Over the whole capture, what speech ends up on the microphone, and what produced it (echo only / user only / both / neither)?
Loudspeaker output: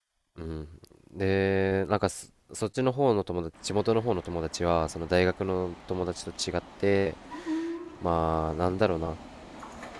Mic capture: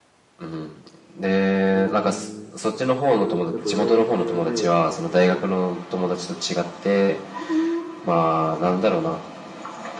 both